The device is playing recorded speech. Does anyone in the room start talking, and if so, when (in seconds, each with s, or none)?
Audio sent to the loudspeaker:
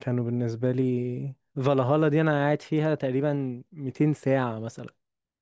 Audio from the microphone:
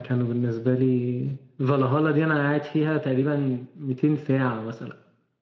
none